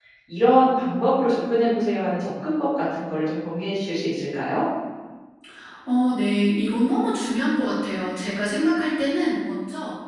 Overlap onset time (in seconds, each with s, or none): none